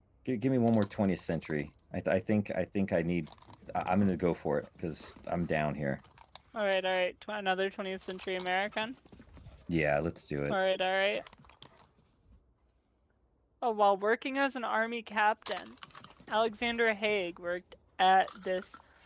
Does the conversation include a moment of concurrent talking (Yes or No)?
No